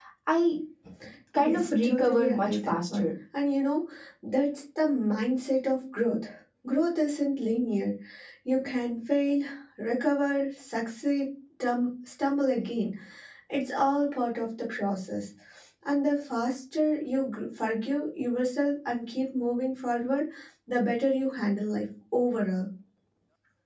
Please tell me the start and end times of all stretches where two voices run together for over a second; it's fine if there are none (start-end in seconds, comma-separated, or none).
1.4-3.1